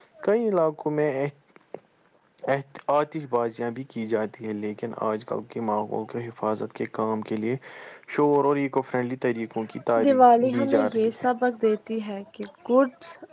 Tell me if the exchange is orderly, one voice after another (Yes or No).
No